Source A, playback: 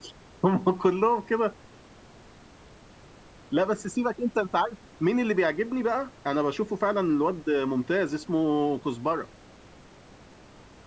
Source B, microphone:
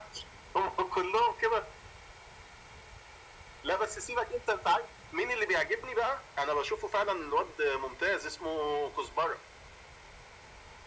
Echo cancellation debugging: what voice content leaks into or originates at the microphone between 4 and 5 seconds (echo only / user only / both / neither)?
echo only